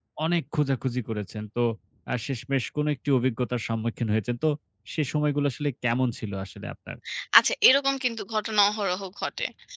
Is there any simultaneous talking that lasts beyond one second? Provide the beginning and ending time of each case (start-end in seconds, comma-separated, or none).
none